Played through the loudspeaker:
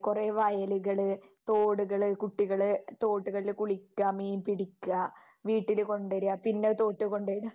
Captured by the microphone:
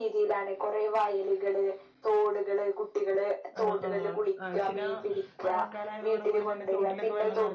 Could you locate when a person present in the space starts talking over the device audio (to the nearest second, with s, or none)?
4 s